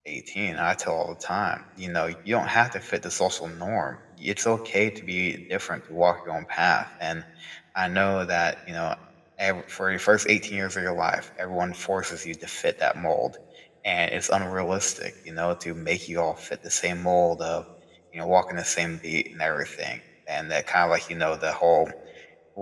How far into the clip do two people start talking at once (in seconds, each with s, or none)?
none